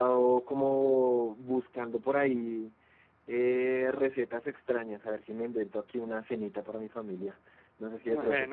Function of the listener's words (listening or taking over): listening